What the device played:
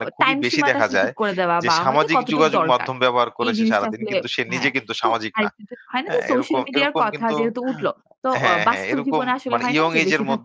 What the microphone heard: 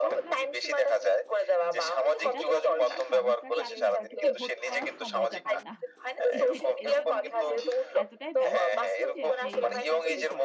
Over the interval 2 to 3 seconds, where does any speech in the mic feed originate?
both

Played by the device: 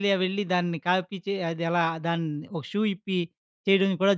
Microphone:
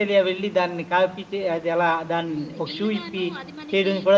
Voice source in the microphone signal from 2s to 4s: both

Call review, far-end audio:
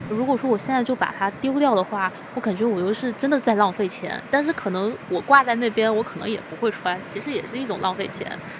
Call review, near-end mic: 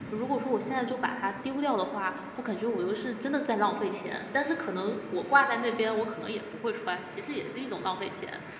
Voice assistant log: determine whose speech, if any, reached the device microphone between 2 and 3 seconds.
echo only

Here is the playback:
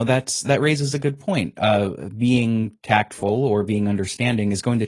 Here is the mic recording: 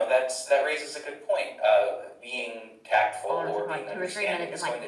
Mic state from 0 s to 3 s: echo only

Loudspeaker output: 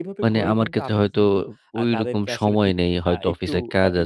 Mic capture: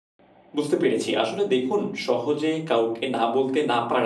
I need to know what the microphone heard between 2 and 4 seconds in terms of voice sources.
user only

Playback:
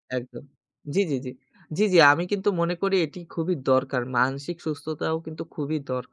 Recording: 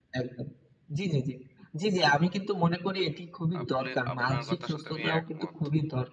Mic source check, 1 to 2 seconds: echo only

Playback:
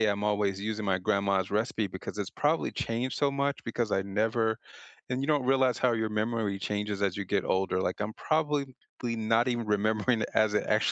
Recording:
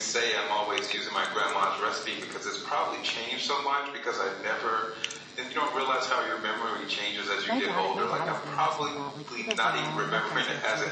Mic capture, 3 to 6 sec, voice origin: echo only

